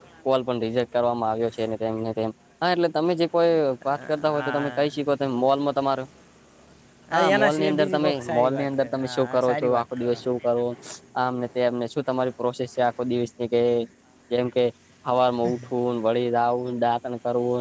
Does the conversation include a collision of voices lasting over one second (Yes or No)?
Yes